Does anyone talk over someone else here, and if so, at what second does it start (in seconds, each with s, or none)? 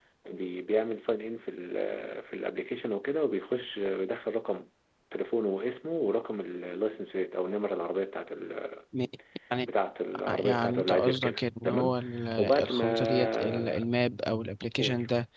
10.3 s